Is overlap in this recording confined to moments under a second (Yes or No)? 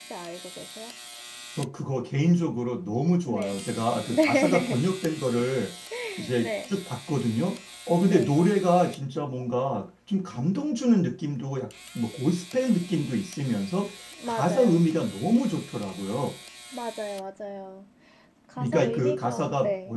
No